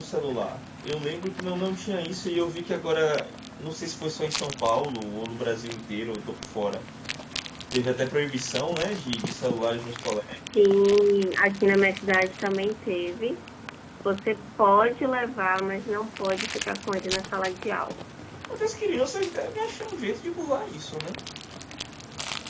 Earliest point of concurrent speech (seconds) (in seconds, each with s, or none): none